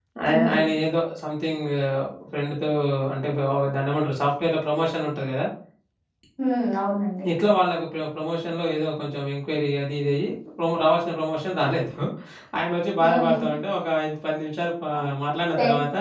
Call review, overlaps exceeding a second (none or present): none